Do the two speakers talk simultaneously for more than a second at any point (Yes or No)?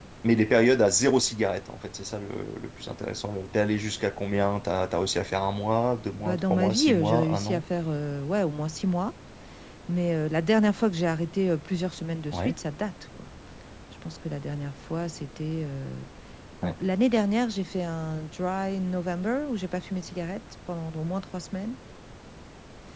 Yes